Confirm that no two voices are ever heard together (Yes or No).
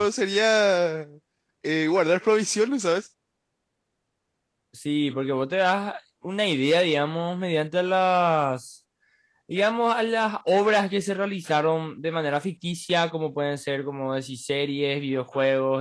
Yes